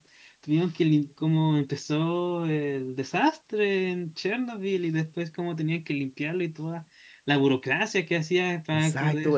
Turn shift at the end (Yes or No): Yes